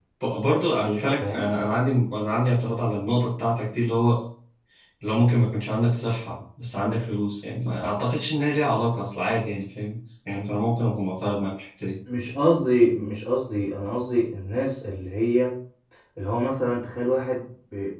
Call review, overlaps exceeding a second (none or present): none